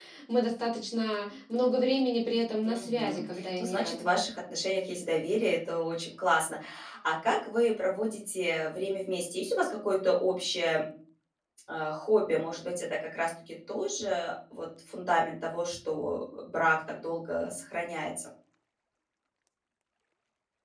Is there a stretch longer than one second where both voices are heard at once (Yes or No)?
Yes